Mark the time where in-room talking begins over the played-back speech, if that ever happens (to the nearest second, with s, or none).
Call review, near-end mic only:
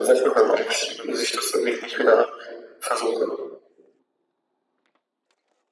none